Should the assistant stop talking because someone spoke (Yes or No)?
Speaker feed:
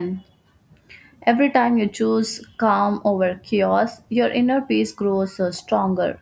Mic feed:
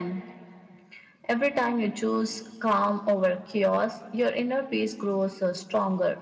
No